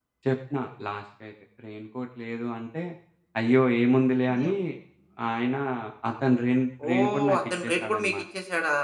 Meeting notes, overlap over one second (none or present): present